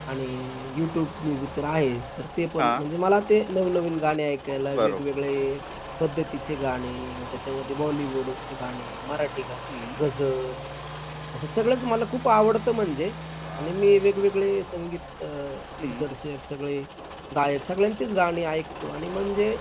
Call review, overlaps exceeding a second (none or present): none